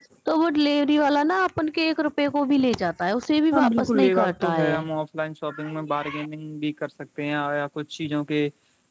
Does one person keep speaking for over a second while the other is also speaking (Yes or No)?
Yes